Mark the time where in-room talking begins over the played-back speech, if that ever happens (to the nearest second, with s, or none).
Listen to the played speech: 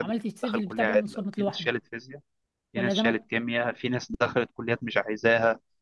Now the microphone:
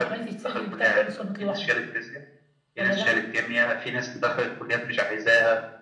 none